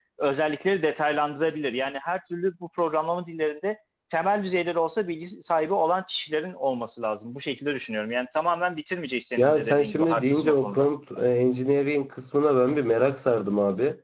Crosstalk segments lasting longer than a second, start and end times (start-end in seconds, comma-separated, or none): 9.4-10.9